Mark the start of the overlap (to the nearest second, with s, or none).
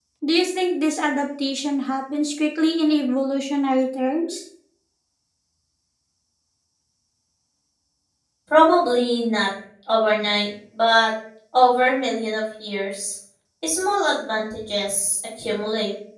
none